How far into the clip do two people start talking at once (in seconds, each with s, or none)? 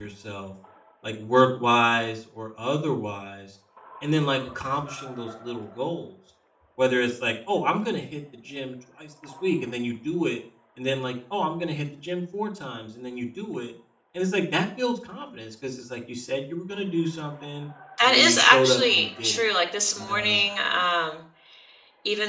18.1 s